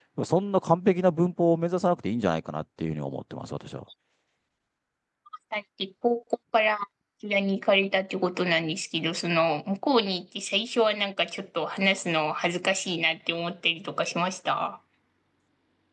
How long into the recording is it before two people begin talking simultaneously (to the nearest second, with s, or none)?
none